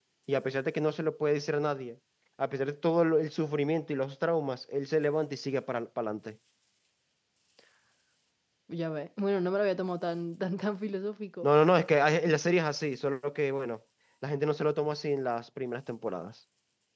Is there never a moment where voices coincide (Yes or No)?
Yes